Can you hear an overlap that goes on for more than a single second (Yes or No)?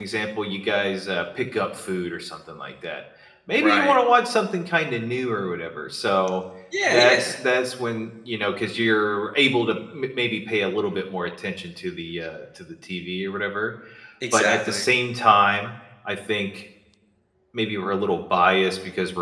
No